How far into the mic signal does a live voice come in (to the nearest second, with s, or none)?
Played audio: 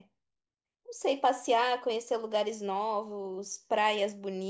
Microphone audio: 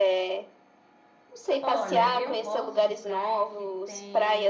2 s